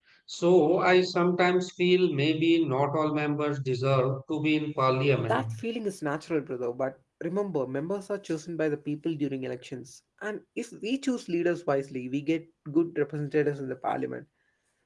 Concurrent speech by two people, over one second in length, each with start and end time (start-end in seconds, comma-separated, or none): none